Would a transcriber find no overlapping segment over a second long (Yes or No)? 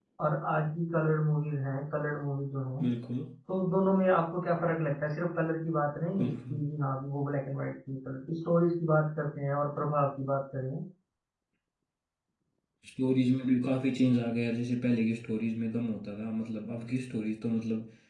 Yes